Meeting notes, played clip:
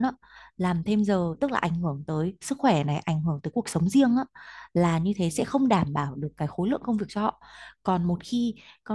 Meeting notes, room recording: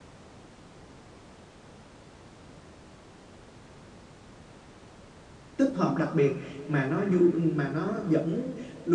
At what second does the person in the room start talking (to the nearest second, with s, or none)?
6 s